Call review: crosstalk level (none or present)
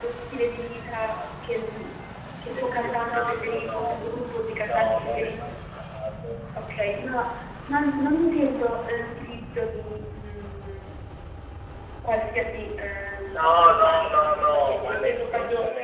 present